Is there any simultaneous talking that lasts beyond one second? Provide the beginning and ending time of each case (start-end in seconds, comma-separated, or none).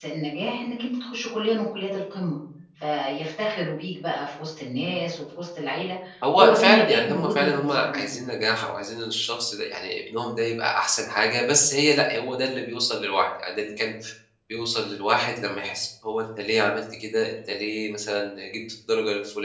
6.4-8.1